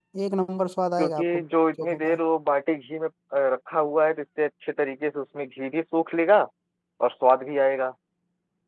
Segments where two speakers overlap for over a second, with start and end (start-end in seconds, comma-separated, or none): none